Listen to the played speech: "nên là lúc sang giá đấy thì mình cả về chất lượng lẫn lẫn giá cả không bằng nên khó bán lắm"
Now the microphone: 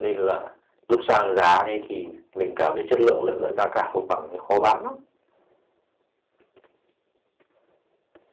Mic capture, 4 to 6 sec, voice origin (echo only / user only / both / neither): echo only